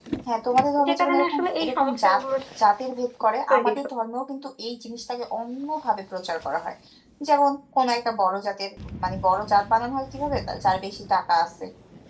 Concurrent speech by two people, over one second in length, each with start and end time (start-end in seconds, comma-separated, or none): 0.9-2.2